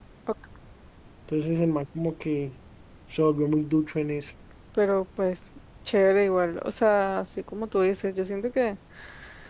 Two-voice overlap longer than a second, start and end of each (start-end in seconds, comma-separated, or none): none